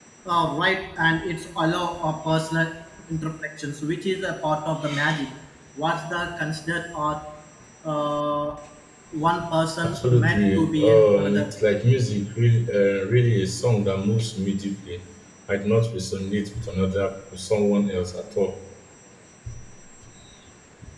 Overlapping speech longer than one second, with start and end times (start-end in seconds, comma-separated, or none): 9.8-11.5